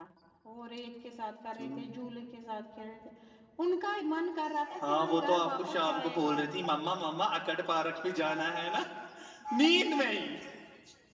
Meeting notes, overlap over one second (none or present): present